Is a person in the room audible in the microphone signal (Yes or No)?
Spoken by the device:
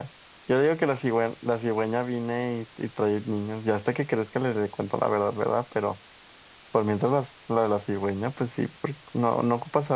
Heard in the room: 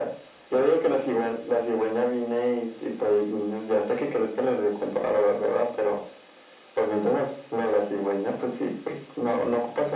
No